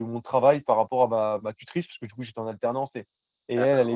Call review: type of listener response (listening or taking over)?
listening